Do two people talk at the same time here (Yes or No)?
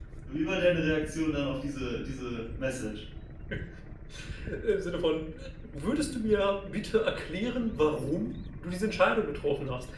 No